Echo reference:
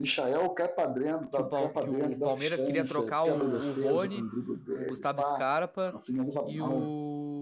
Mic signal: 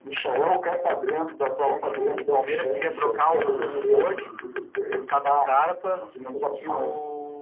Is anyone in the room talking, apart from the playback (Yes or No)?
No